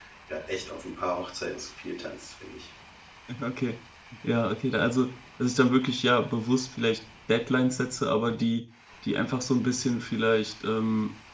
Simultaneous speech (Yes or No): No